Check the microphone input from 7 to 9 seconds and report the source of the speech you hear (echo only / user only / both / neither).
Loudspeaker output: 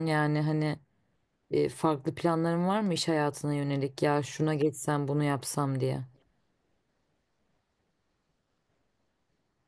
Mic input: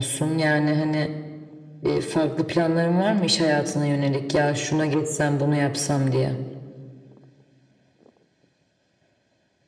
neither